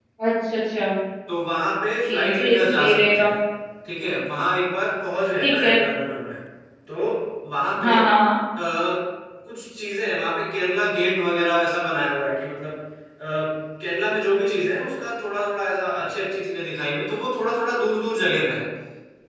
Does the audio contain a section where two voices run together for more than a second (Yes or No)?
Yes